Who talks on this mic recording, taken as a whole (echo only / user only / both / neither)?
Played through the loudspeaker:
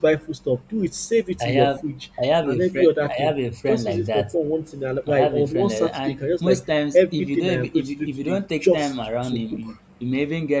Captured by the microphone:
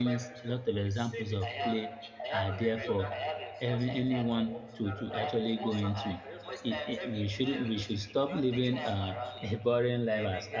both